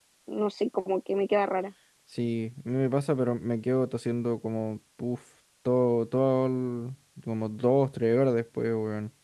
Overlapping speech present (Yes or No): No